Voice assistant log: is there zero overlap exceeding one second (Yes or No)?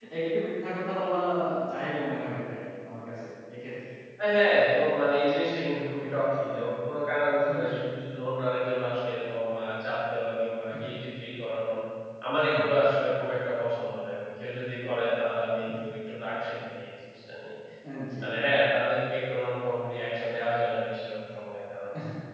Yes